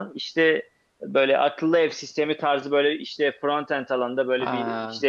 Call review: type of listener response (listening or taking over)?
listening